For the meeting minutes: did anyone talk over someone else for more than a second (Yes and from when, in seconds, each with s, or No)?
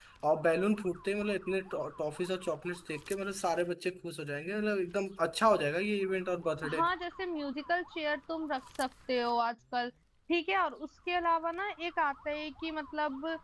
No